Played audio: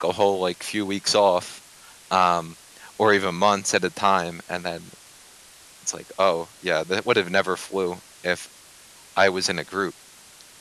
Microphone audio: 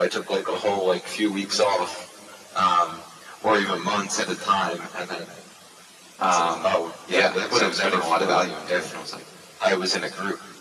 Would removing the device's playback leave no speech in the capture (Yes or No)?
No